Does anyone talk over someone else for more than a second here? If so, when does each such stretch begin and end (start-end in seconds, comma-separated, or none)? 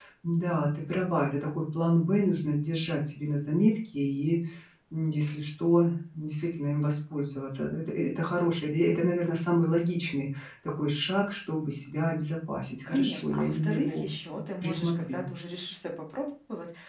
12.9-15.2